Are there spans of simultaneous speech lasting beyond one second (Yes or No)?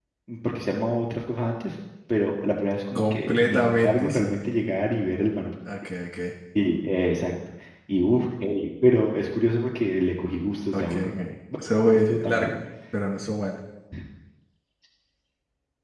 Yes